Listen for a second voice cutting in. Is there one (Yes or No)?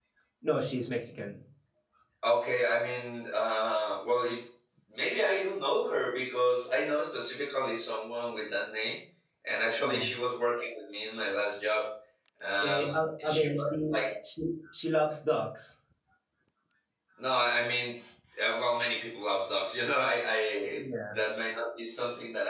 Yes